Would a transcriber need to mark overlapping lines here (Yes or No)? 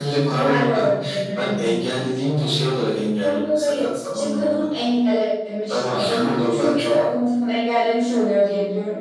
Yes